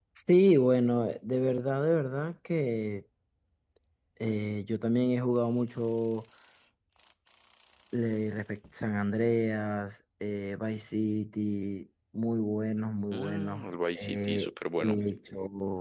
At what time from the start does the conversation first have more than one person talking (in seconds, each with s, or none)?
13.1 s